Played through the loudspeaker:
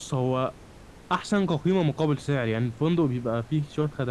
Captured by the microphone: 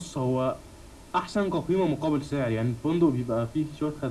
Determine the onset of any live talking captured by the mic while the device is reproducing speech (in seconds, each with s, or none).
none